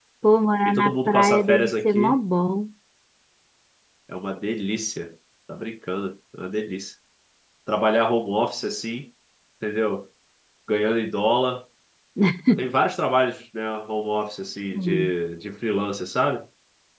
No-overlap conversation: No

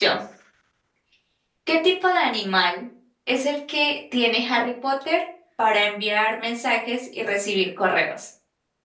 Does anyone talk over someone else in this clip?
No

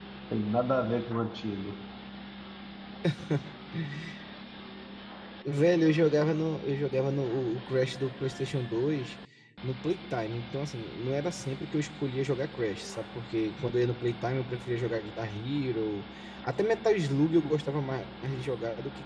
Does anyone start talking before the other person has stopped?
No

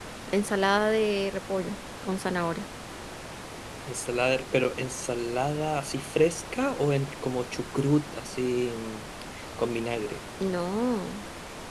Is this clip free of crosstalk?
Yes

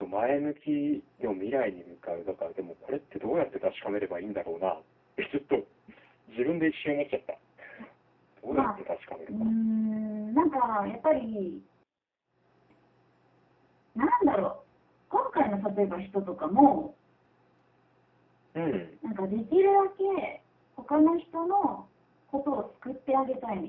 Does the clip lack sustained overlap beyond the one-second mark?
Yes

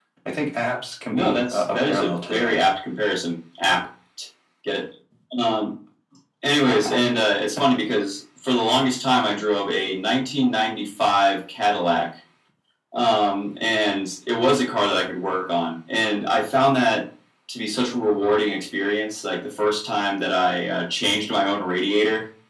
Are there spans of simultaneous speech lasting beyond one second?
Yes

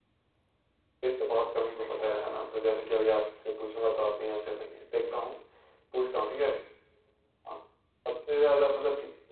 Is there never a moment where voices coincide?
No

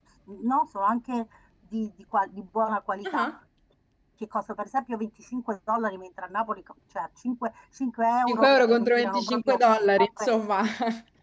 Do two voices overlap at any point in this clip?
Yes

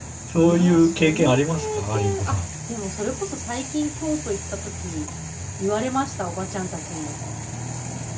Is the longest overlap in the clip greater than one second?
Yes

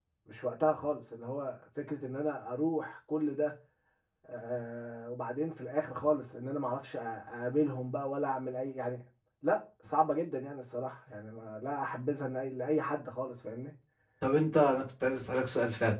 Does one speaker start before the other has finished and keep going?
No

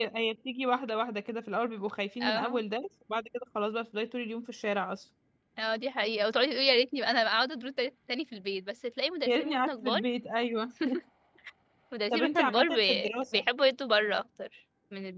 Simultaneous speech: Yes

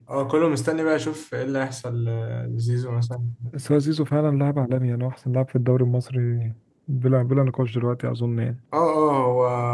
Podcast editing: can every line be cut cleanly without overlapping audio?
Yes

